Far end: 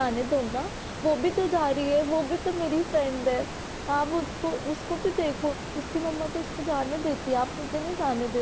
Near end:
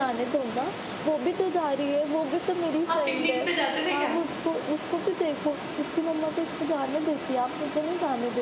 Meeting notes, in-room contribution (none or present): present